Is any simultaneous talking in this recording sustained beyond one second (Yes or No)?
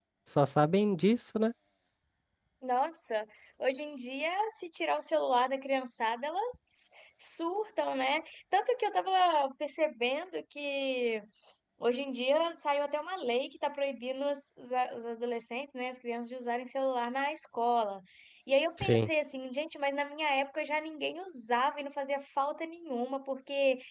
No